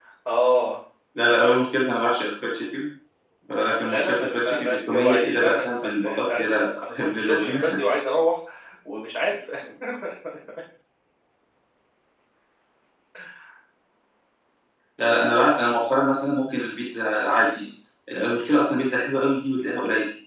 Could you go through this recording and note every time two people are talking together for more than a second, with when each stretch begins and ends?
3.8-7.8

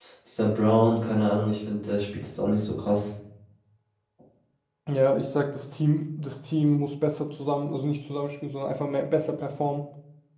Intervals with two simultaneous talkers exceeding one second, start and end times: none

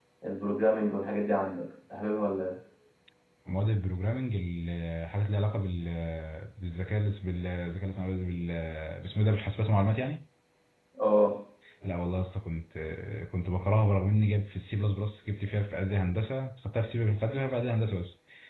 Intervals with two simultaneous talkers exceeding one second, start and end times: none

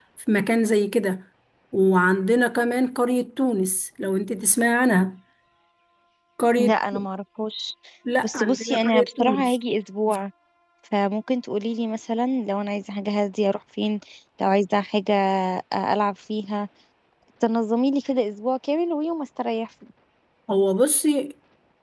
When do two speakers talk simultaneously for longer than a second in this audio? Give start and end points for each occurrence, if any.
8.2-9.6

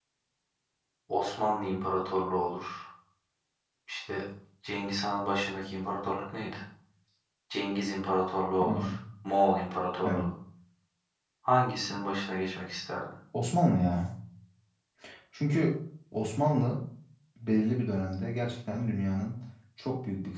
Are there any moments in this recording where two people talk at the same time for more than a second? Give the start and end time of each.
none

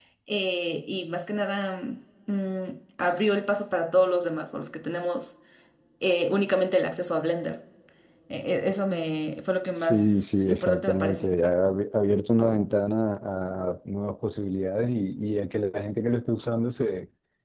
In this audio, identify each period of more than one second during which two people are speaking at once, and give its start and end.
9.8-11.3

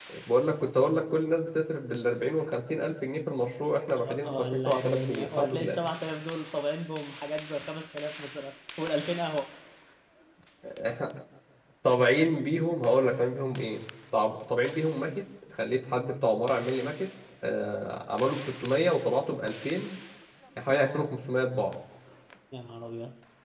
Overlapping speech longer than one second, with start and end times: 4.0-5.8

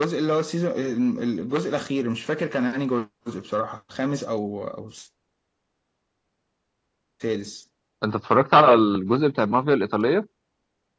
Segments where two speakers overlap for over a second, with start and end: none

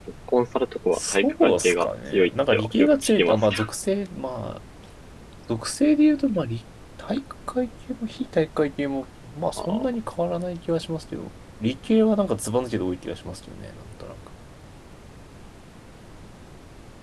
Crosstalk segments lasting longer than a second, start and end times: 0.9-3.6

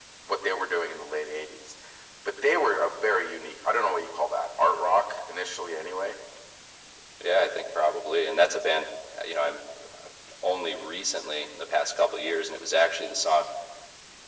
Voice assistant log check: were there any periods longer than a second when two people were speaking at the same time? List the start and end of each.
none

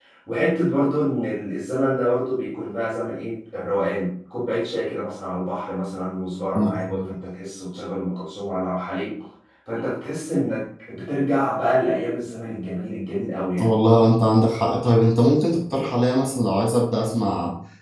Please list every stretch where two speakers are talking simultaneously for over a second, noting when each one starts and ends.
none

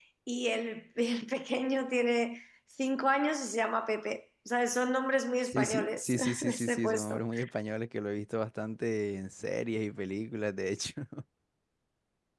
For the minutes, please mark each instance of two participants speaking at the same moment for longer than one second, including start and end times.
5.4-7.2

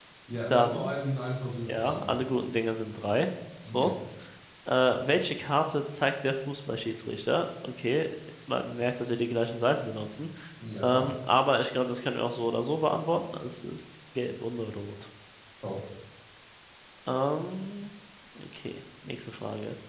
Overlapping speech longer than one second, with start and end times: none

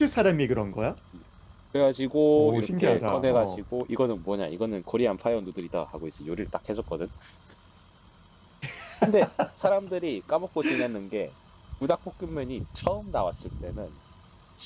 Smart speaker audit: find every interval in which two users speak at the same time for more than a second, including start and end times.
2.4-3.6

